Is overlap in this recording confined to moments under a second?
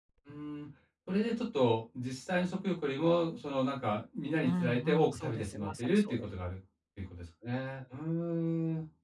No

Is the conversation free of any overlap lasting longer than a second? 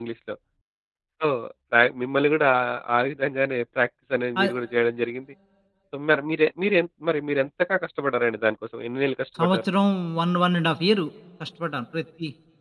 Yes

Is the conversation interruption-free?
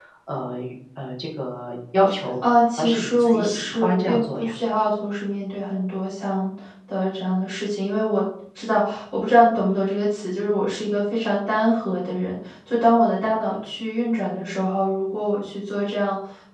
No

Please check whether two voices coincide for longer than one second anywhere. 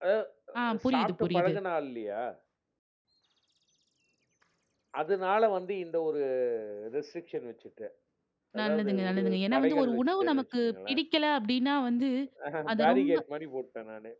Yes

